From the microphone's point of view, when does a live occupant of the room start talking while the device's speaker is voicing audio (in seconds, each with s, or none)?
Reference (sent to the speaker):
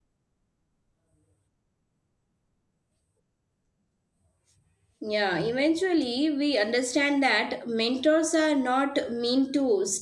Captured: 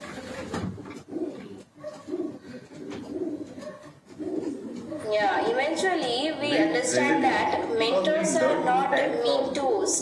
6.5 s